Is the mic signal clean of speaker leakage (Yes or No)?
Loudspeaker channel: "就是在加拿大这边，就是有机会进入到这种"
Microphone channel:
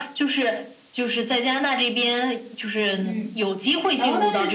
No